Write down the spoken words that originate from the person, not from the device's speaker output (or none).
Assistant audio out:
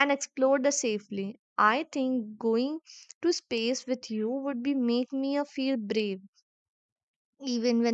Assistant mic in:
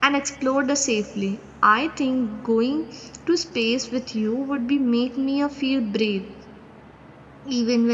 none